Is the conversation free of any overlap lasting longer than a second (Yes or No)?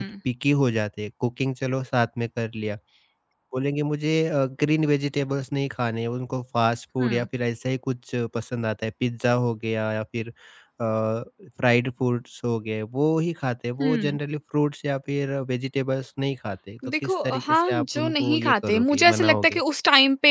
No